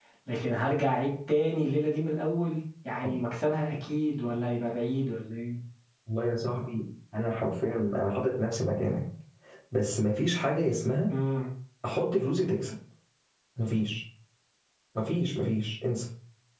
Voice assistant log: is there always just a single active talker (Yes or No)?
Yes